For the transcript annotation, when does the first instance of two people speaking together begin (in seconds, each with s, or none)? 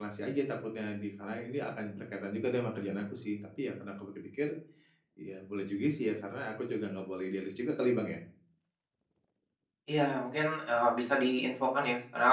none